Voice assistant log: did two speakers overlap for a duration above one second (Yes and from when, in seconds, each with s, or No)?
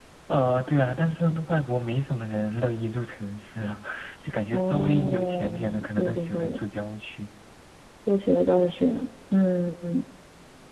Yes, from 4.5 s